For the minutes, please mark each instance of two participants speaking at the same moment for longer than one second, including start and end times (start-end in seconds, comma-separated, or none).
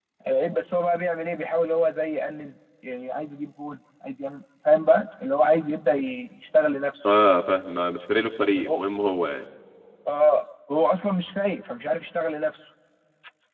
none